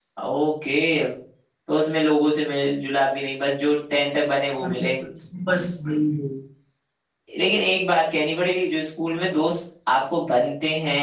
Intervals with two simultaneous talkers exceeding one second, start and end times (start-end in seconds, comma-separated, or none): none